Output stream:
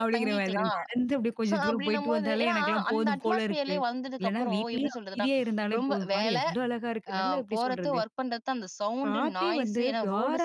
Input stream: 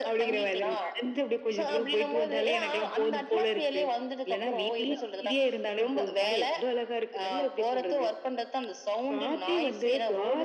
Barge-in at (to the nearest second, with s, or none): none